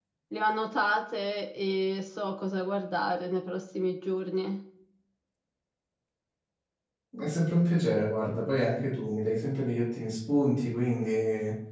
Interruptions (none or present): none